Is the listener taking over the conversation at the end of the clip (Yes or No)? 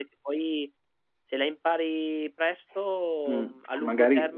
Yes